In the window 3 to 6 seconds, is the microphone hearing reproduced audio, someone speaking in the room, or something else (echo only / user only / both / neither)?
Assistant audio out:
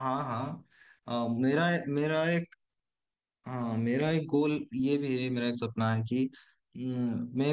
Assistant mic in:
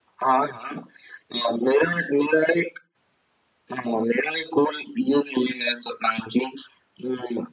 echo only